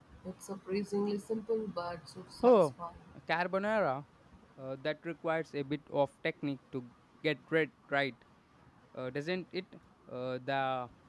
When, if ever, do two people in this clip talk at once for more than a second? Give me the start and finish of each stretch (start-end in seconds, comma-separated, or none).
none